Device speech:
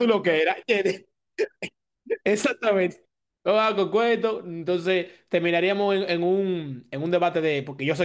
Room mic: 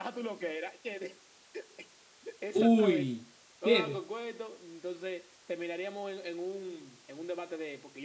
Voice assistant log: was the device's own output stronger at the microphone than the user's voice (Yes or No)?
No